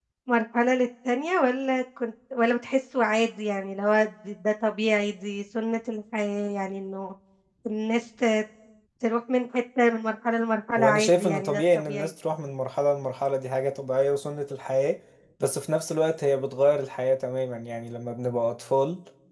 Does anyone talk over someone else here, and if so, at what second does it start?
10.8 s

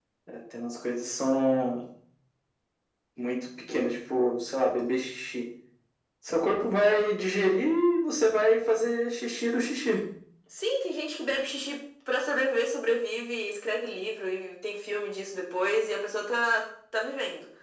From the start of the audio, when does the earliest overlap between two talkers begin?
none

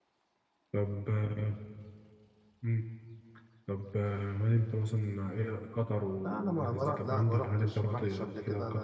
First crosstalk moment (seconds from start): 6.2 s

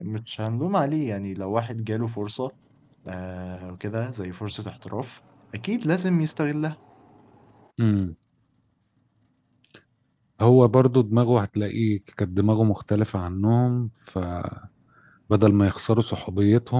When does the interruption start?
none

